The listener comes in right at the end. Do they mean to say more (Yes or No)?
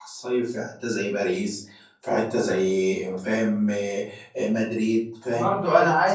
Yes